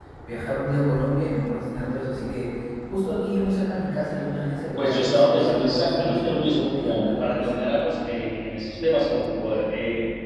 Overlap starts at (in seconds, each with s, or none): 4.8 s